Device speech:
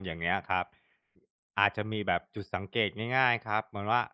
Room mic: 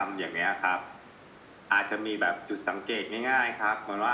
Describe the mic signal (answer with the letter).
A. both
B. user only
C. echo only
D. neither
C